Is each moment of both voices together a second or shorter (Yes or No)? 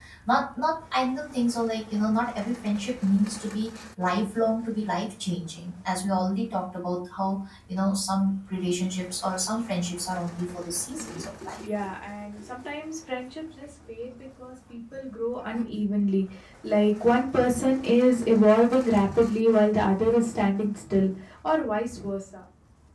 Yes